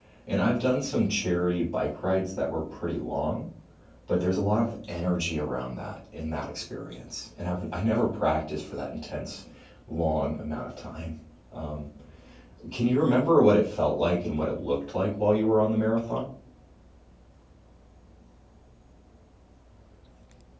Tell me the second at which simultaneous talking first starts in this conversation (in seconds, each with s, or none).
none